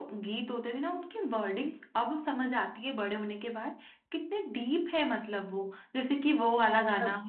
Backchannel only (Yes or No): Yes